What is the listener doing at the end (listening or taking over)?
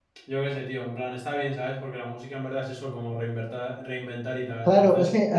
taking over